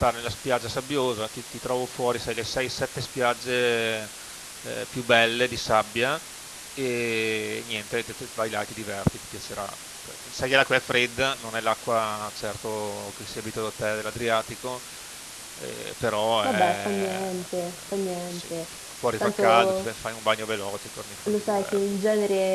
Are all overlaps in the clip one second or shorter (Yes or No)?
No